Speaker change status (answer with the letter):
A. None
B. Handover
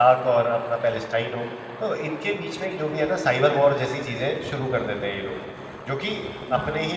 A